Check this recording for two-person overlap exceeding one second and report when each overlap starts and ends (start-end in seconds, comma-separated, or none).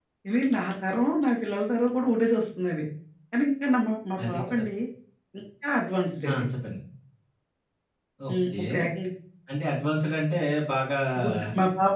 none